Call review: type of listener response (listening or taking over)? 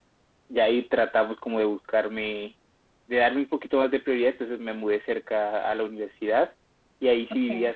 listening